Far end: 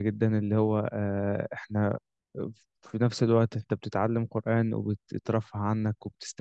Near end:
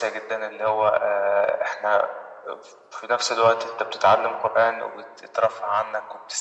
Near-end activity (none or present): none